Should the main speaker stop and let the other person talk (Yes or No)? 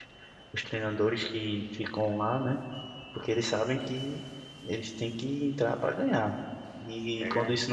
No